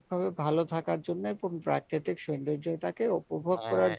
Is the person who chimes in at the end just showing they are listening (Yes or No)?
Yes